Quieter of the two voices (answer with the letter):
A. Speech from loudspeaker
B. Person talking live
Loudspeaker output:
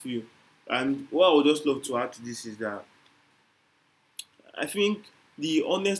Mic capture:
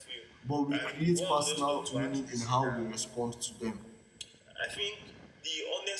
A